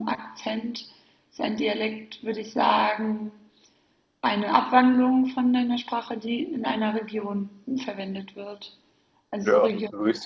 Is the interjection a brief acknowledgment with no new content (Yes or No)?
No